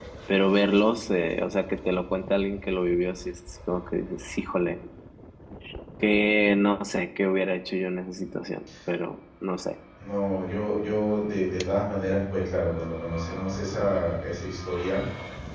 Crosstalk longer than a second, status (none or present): none